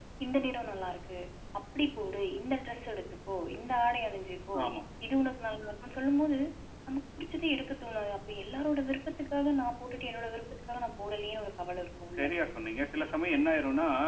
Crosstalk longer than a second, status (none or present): none